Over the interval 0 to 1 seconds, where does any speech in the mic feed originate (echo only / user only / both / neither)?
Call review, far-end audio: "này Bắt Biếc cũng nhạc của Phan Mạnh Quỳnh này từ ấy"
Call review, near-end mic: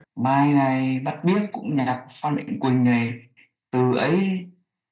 echo only